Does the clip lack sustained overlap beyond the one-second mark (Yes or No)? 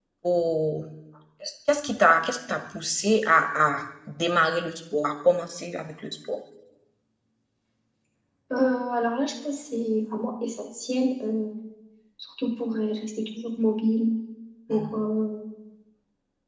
Yes